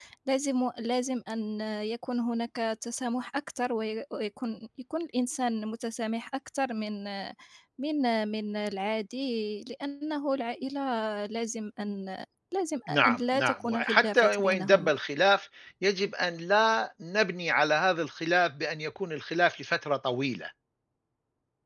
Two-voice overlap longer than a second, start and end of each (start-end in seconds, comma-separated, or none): 12.9-14.9